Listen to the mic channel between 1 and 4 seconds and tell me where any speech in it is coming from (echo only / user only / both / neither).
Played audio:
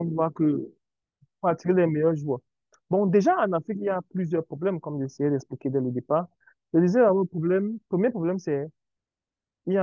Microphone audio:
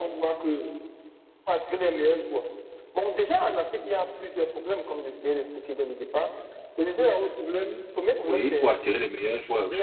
echo only